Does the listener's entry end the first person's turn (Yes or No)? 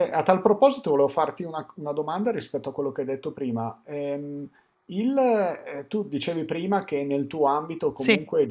No